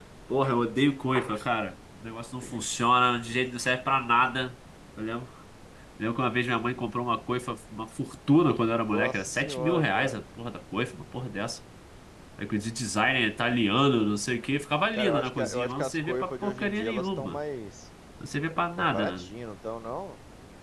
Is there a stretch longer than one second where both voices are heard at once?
Yes, from 8.8 s

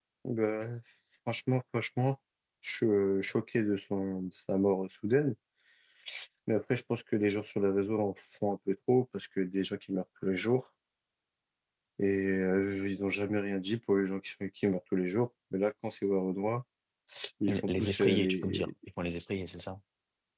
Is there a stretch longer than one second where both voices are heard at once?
Yes, from 17.5 s

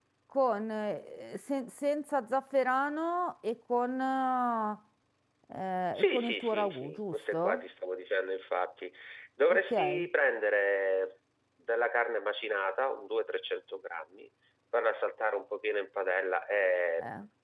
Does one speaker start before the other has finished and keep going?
Yes, from 6.0 s

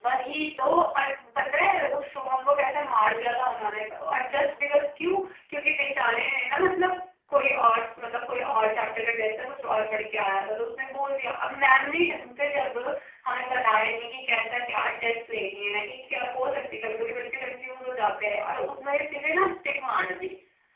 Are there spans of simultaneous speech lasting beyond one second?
No

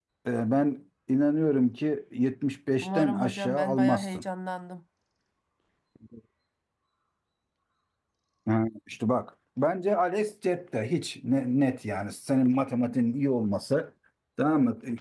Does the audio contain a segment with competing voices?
Yes, from 2.8 s

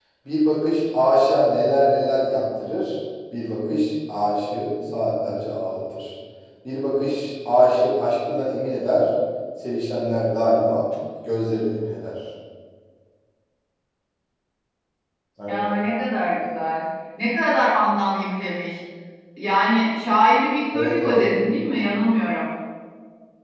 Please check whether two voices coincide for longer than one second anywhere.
No

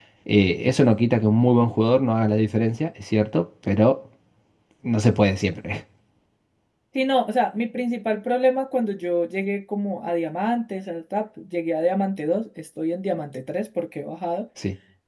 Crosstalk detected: No

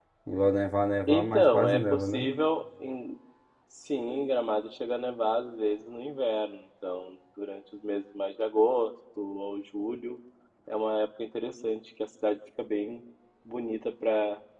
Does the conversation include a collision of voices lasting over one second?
Yes, from 1.1 s

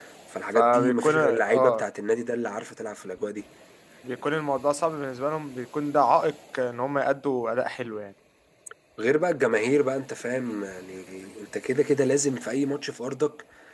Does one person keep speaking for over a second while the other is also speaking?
Yes, from 0.6 s

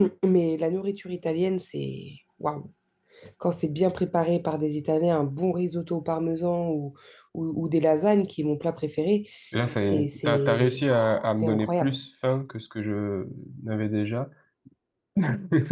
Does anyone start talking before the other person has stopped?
Yes, from 9.9 s

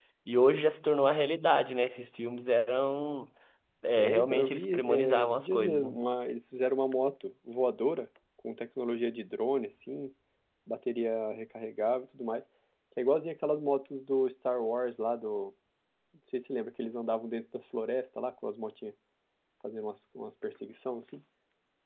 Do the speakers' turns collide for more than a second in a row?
Yes, from 4.0 s

